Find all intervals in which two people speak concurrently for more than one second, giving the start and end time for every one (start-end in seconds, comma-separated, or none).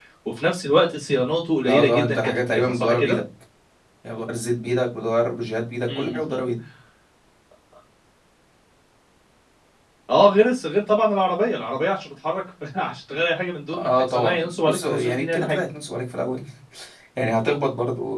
1.7-3.2, 13.7-15.6